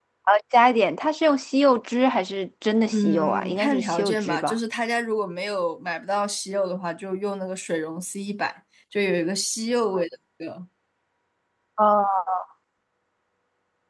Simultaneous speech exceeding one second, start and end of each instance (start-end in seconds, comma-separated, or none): 2.9-4.5